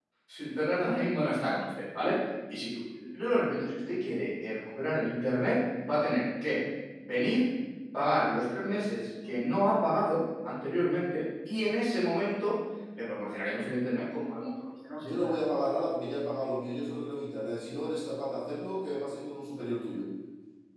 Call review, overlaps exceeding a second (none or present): none